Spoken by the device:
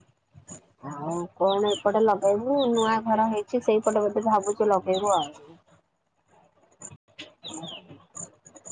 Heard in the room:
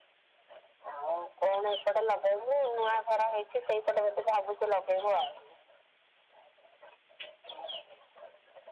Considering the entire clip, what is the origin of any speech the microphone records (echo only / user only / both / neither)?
echo only